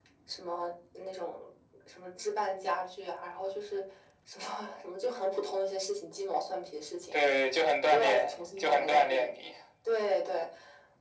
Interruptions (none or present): present